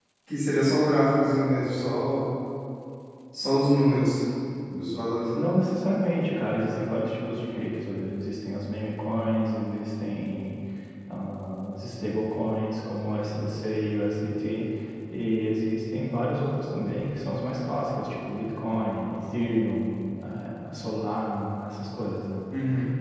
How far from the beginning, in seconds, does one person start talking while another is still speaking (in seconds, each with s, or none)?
none